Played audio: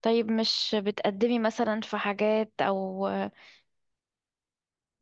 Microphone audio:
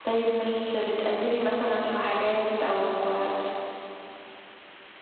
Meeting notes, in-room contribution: none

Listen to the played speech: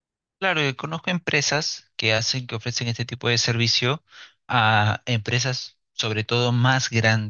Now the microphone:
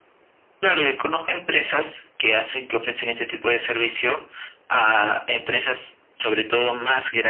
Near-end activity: none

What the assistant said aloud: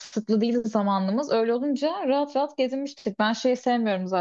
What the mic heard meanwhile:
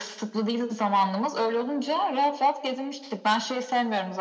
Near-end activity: none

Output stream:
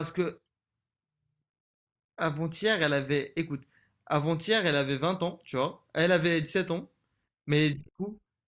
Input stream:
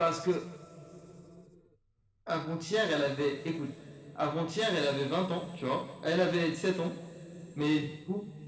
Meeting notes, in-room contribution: none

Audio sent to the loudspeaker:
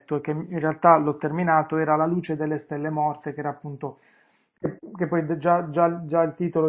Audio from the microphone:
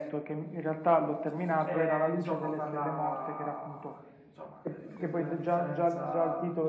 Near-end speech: present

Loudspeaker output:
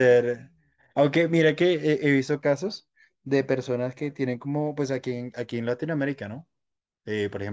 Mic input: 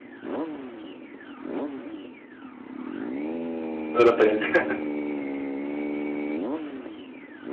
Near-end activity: present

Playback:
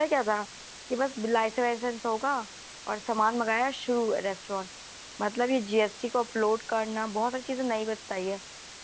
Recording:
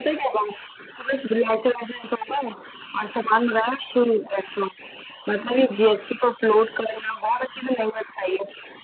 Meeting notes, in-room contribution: none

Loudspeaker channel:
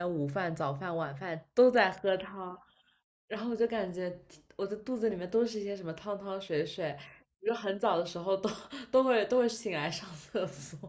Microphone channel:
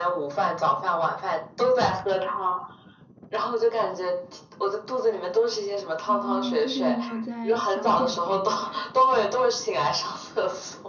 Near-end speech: present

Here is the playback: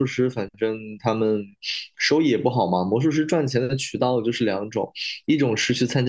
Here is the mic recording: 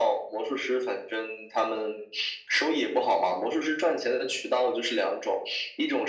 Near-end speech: none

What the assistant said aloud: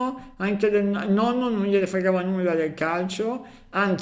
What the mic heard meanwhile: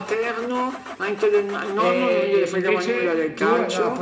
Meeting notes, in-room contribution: present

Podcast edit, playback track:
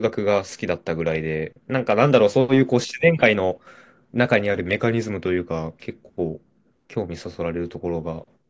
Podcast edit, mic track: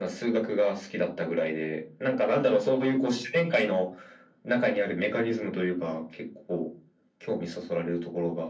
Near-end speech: none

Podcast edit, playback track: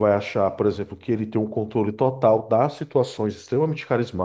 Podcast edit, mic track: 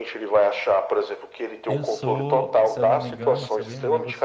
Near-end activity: present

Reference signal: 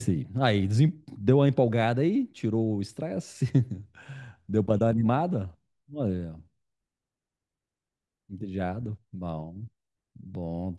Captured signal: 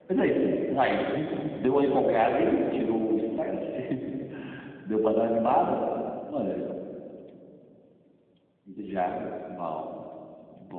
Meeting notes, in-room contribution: none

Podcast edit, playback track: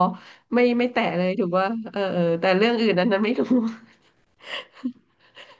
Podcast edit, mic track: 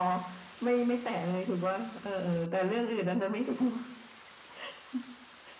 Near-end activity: none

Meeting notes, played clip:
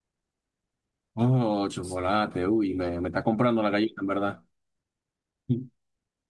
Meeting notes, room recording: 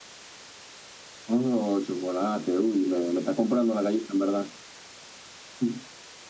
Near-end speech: none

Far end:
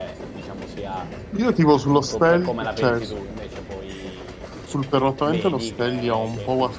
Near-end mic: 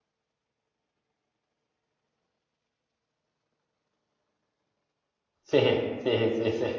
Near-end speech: present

